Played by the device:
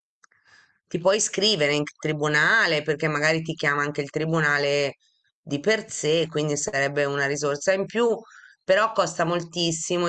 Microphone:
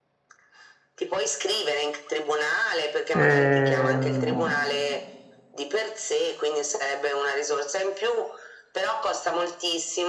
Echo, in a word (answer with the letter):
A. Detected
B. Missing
A